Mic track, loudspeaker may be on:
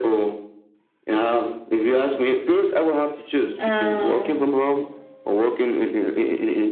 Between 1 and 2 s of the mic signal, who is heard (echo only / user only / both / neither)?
echo only